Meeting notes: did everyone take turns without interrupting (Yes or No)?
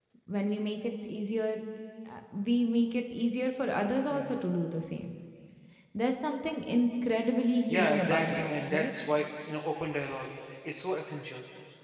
No